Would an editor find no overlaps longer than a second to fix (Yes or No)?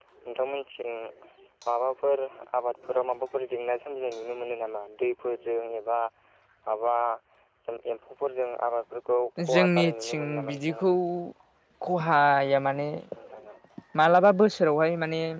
No